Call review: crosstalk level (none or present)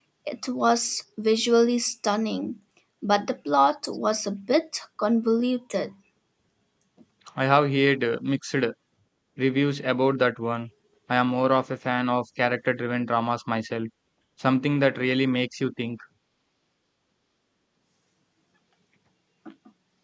none